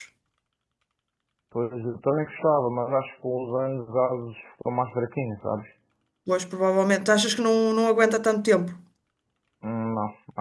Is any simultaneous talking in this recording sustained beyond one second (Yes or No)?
No